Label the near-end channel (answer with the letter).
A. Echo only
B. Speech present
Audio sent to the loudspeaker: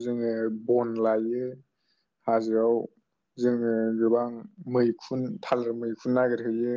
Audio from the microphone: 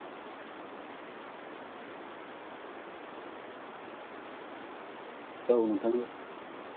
B